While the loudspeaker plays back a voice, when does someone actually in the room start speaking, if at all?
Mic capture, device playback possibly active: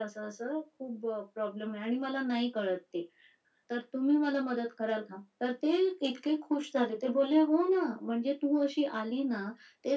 none

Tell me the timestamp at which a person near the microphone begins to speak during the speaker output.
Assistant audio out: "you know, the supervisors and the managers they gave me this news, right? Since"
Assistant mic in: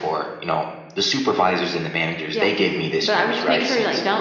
2.3 s

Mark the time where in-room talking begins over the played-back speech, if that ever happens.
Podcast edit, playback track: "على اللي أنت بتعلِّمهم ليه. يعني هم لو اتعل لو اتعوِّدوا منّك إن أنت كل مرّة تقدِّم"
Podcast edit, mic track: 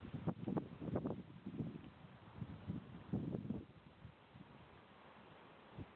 none

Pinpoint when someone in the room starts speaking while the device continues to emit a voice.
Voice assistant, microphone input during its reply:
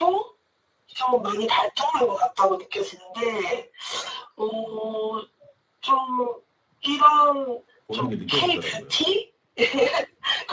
7.9 s

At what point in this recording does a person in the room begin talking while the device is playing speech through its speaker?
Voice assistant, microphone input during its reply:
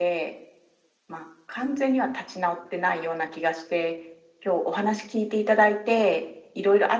none

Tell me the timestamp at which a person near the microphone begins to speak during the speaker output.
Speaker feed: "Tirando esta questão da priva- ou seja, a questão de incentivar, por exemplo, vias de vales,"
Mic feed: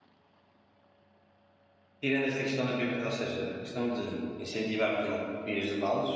none

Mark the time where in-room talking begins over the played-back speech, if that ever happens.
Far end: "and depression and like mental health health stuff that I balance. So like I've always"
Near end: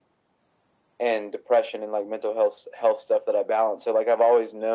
none

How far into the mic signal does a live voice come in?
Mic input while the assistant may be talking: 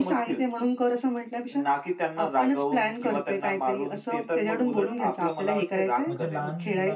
6.0 s

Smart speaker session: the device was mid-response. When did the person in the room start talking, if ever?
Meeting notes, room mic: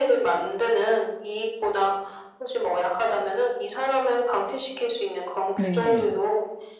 5.5 s

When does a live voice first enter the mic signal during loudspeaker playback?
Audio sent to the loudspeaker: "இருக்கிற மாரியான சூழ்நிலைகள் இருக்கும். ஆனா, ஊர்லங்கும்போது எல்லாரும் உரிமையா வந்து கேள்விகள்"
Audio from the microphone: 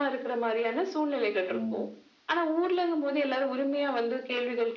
1.5 s

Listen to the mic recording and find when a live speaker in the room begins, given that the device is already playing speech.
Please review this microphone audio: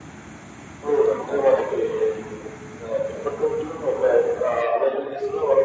none

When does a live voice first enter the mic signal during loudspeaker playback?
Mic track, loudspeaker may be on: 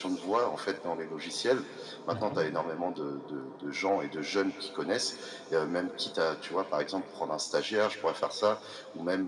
2.1 s

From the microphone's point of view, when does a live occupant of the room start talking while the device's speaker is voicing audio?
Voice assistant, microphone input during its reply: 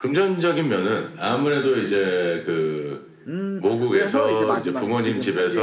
3.3 s

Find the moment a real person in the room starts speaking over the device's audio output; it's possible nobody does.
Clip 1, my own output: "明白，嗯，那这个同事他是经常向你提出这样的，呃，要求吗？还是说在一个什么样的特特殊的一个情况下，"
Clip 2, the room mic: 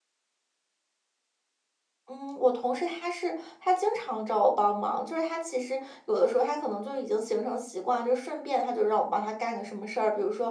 2.1 s

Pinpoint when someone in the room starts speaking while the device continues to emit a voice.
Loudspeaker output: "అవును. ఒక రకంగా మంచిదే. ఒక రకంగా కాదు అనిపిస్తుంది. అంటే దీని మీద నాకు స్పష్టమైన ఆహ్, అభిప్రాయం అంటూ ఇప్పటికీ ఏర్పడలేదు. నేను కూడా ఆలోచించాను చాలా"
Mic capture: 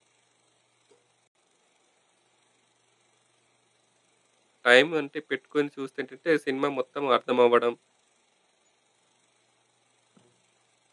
4.7 s

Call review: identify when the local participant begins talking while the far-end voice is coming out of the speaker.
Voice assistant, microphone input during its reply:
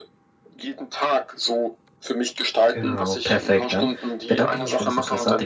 2.7 s

